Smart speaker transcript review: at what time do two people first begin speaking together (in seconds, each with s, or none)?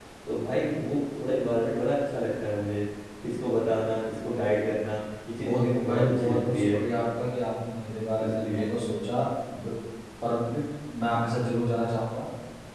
5.4 s